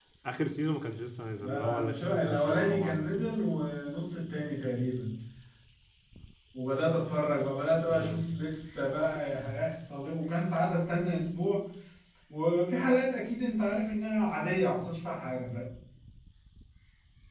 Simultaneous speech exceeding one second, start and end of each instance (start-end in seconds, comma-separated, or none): 1.4-3.2